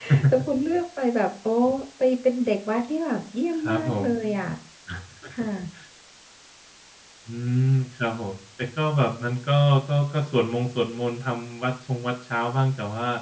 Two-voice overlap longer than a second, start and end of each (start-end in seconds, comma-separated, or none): none